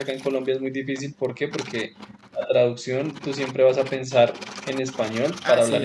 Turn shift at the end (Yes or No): No